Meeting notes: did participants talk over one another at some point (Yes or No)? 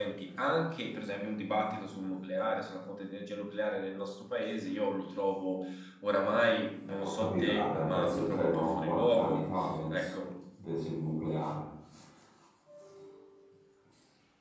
Yes